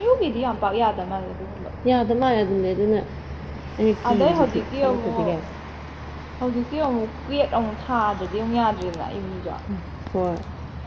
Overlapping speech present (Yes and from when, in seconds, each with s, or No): Yes, from 4.1 s